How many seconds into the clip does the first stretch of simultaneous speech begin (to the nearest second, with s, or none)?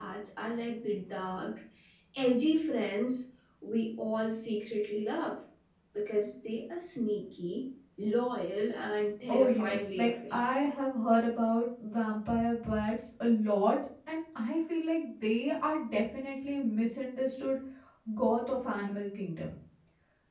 9 s